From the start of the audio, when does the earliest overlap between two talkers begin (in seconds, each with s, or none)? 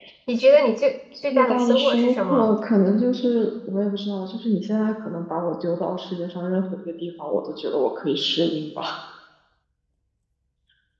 1.2 s